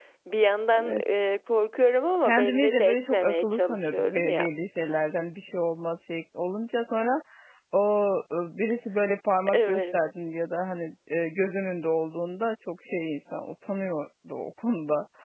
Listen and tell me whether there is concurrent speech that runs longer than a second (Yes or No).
Yes